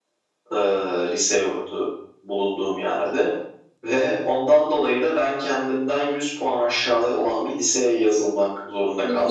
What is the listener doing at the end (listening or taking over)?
taking over